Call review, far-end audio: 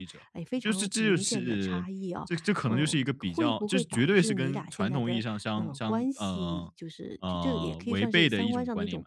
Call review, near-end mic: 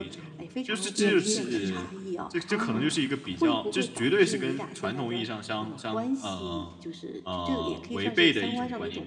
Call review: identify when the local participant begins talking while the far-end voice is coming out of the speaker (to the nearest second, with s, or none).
1 s